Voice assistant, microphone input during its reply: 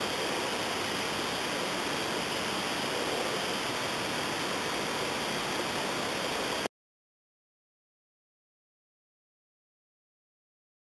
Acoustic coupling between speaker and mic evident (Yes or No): No